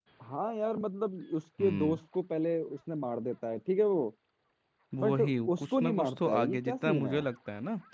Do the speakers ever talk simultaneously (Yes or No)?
Yes